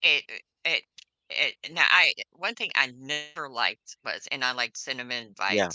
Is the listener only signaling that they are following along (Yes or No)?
Yes